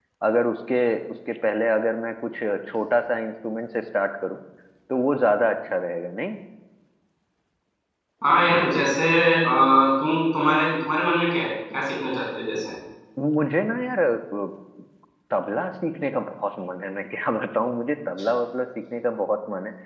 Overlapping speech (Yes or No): No